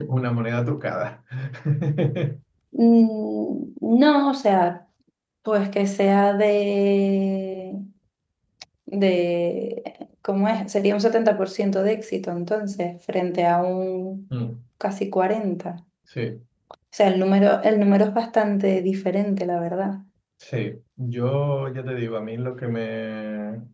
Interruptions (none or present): none